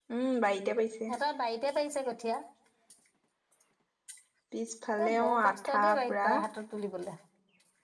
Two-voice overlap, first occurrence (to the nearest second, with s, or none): 5 s